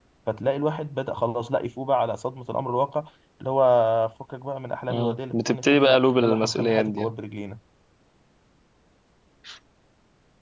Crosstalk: present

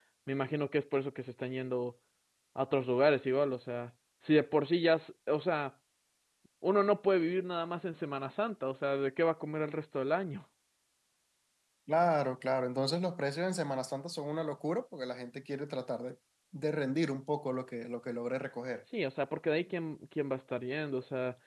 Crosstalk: none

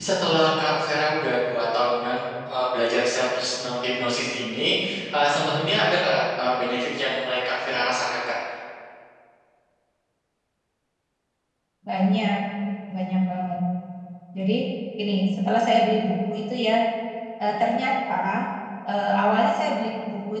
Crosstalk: none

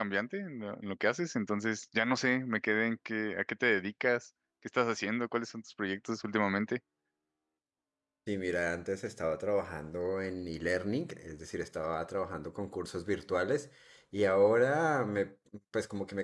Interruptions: none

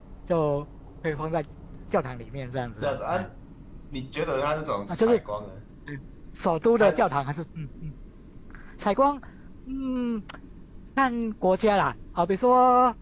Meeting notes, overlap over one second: none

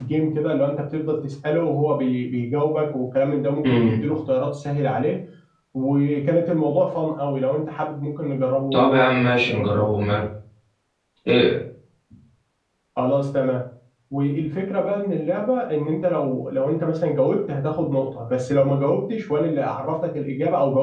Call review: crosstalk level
present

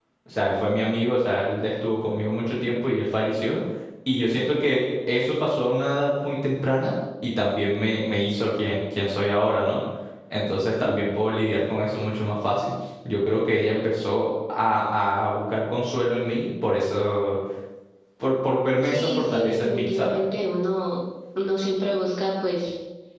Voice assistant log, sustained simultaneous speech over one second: present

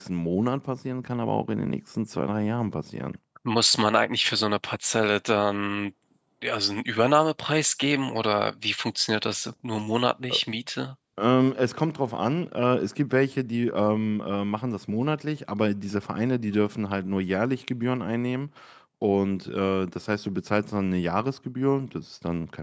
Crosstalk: none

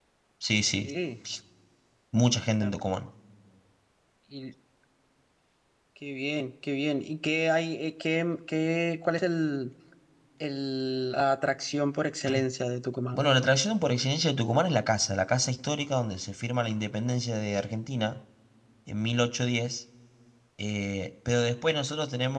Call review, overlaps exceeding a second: none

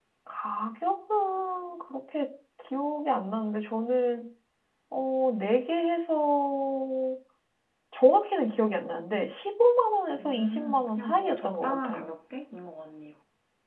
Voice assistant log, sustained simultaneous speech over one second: present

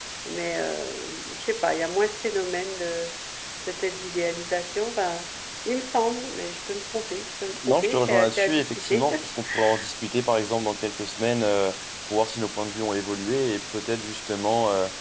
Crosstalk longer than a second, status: present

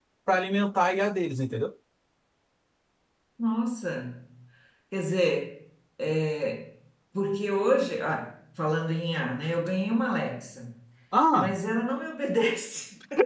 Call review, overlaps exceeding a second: none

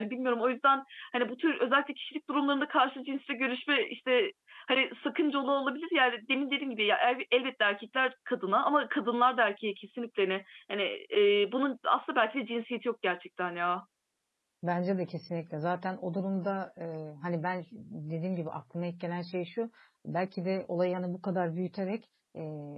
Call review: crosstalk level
none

